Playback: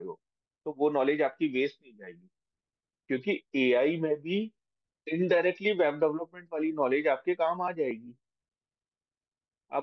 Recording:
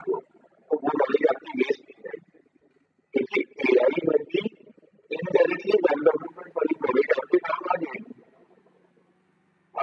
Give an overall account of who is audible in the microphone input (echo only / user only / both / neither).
echo only